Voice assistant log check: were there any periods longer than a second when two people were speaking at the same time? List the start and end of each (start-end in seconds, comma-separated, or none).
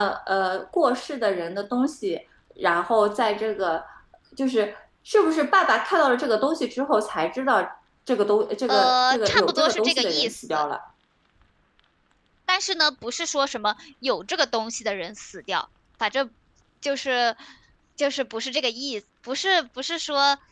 8.7-10.7